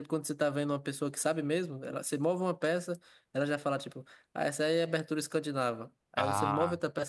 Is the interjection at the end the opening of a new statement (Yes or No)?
No